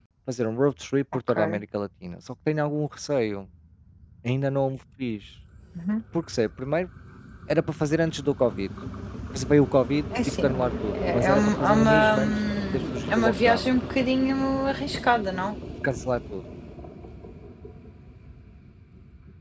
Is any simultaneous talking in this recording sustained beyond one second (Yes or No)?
Yes